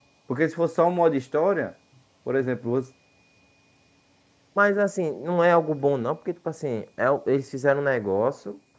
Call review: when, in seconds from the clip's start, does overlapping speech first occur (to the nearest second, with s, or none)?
none